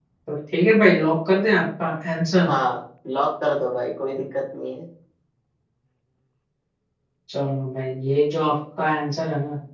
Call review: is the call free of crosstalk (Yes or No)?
Yes